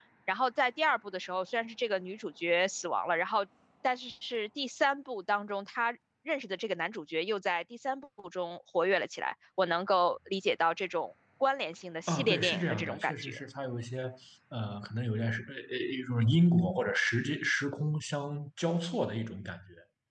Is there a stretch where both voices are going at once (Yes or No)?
Yes